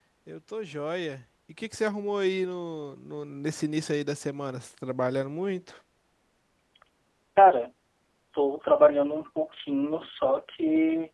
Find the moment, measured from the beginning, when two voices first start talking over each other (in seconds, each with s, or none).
none